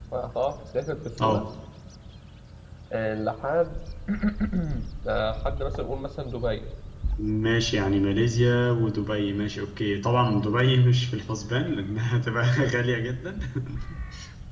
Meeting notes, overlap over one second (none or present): none